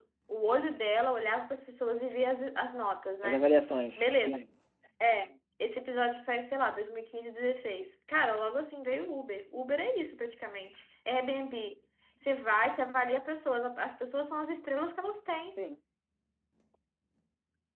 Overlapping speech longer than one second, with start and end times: none

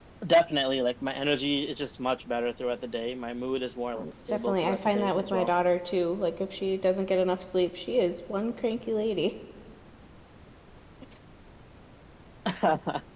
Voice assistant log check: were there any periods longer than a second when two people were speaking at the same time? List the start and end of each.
4.0-5.5

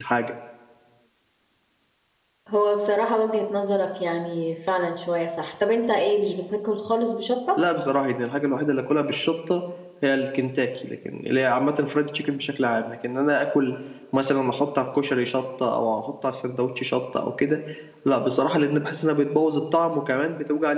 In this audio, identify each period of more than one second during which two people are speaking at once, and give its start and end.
none

